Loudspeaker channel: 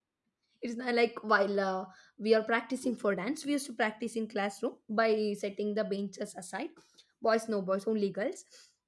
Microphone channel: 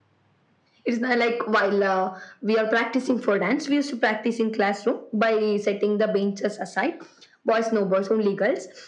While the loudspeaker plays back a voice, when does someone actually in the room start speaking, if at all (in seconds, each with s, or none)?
none